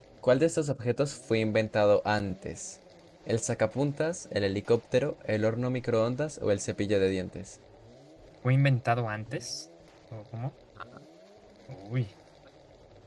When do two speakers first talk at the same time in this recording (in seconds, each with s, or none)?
none